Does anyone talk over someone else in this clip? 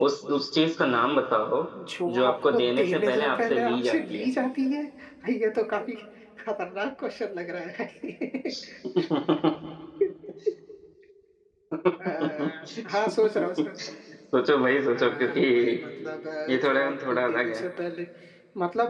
Yes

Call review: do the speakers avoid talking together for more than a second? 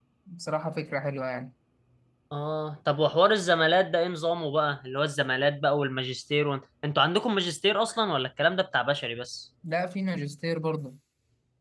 Yes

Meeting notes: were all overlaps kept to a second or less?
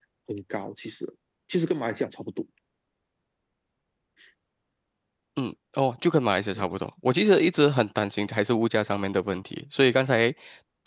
Yes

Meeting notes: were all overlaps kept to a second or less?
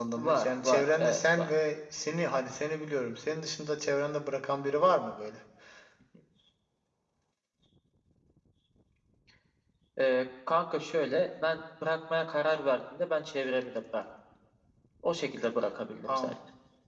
No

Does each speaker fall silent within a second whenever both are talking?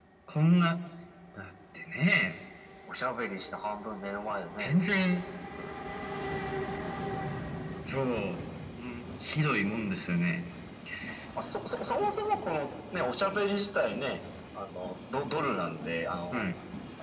Yes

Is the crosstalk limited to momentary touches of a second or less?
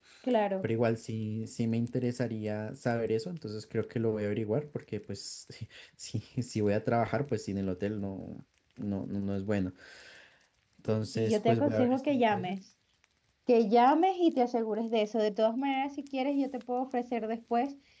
No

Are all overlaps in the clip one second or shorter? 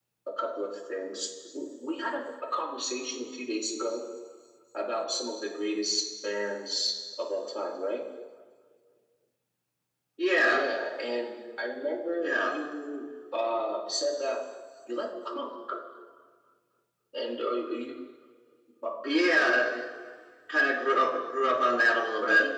Yes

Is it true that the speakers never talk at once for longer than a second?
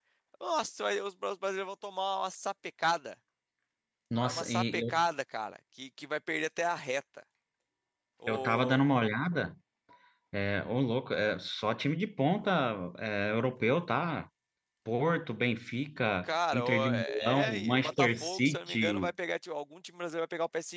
No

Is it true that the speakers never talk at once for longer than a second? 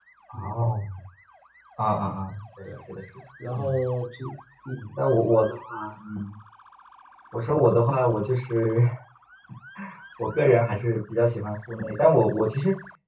Yes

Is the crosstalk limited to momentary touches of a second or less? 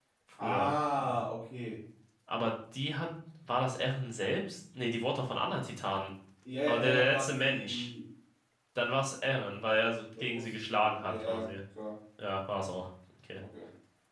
No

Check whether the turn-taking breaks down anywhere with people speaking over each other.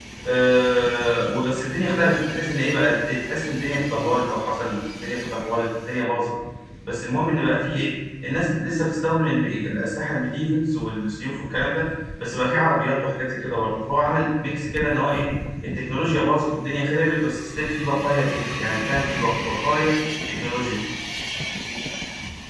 No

